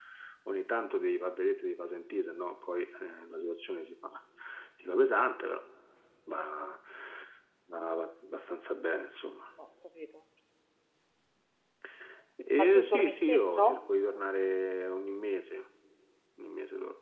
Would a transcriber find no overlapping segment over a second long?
No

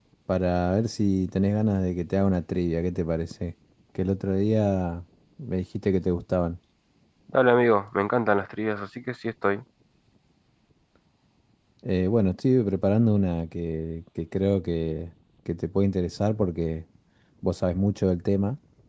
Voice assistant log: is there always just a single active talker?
Yes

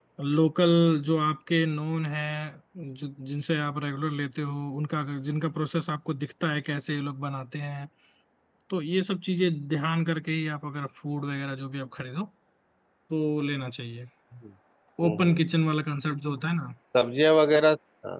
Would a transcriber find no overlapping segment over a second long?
Yes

